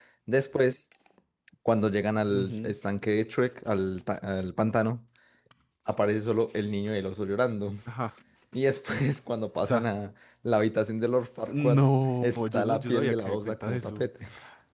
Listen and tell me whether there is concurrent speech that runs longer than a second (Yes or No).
Yes